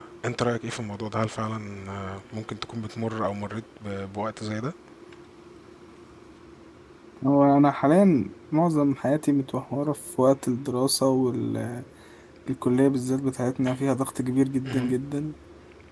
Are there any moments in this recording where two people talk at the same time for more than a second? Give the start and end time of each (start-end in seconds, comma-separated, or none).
none